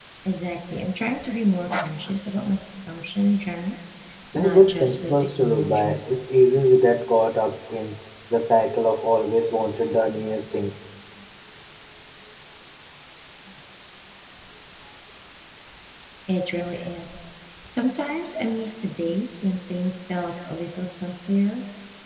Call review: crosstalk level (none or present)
present